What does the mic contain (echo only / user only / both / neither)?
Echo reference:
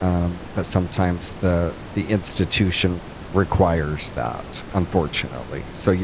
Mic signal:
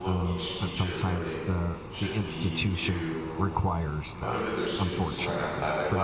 both